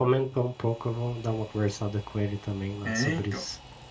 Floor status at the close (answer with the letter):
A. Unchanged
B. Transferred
B